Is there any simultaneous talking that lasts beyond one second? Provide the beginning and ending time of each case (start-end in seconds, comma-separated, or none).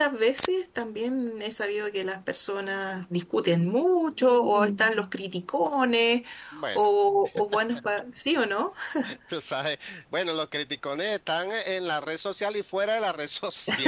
none